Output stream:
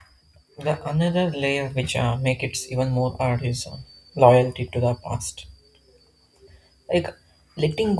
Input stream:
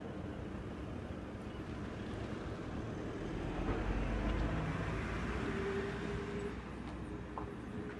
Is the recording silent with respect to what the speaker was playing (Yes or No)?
Yes